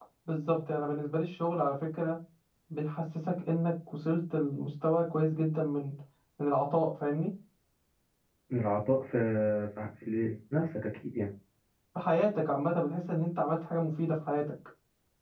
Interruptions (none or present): none